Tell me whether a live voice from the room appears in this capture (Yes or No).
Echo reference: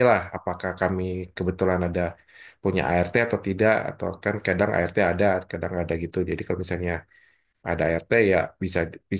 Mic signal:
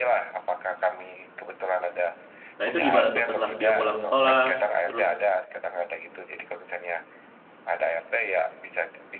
Yes